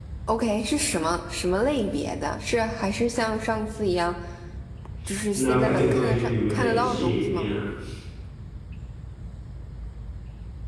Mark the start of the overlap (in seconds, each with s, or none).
5.3 s